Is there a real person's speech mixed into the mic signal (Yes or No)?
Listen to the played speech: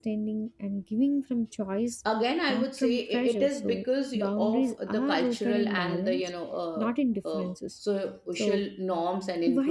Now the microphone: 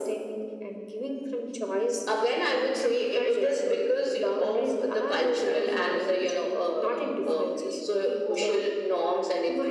Yes